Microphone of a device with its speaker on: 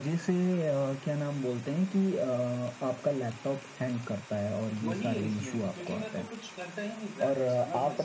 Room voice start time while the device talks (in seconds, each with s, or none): 4.9 s